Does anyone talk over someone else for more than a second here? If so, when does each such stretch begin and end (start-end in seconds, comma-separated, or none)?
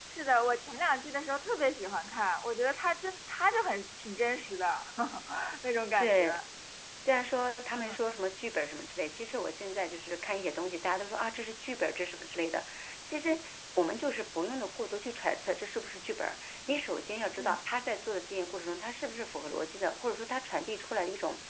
none